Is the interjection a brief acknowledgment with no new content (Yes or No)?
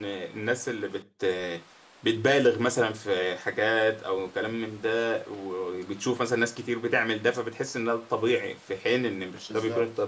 No